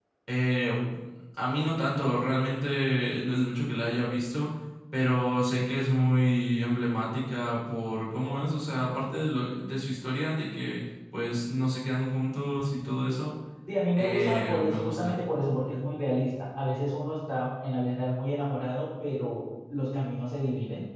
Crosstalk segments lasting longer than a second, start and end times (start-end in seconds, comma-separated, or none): 14.0-15.2